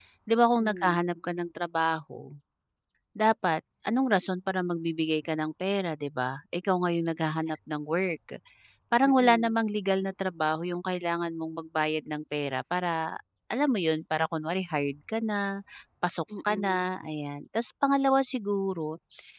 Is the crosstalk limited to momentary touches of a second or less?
Yes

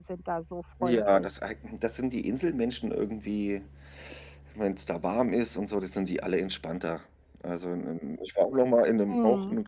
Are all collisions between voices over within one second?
Yes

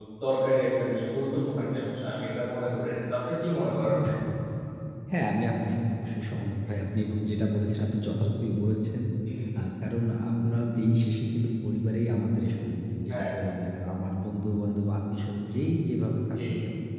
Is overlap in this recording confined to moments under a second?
Yes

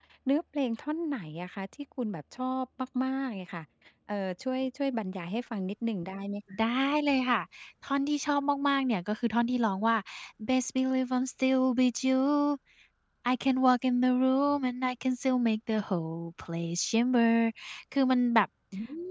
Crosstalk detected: No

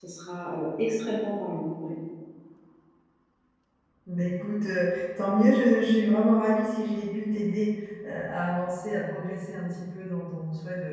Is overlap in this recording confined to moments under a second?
Yes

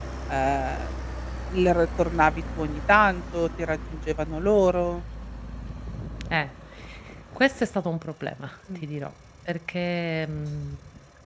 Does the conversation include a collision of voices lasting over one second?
No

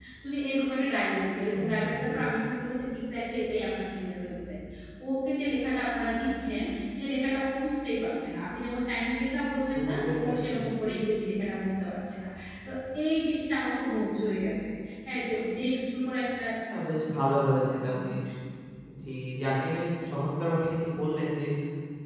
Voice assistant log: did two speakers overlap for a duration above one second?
Yes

